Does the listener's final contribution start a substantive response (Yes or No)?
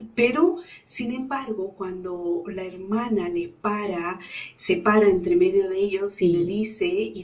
No